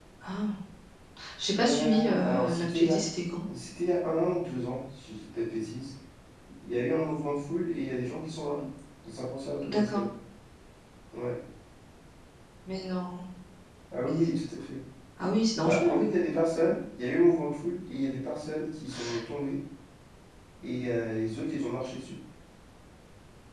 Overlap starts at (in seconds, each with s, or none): 1.6 s